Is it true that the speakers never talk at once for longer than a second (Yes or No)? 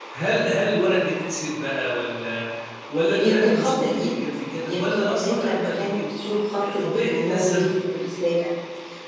No